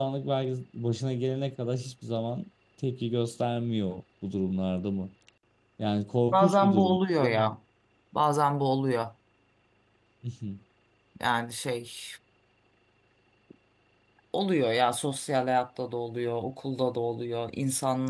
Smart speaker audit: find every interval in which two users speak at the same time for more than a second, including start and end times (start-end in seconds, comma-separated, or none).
6.3-7.5